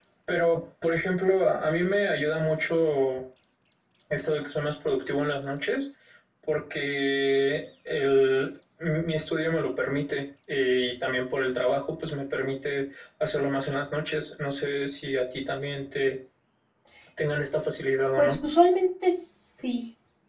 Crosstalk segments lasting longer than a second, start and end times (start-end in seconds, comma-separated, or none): none